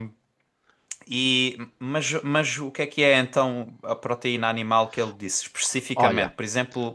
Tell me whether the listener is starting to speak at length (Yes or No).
No